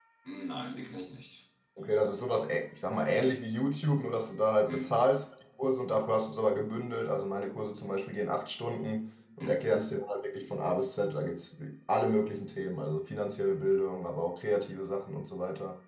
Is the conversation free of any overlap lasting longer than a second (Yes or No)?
Yes